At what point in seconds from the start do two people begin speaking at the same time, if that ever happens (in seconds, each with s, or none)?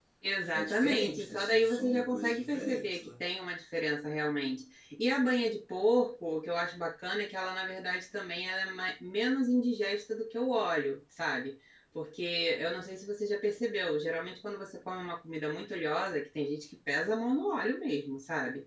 0.5 s